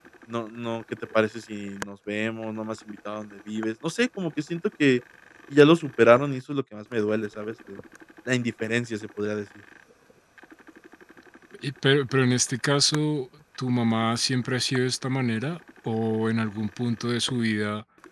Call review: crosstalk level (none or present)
none